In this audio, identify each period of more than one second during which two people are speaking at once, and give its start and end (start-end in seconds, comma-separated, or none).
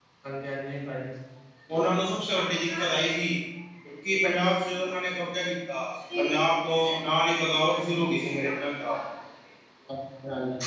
none